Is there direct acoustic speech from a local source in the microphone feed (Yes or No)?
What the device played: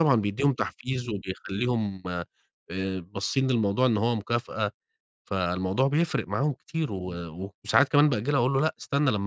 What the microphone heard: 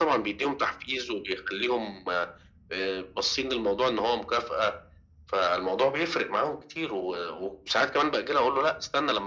No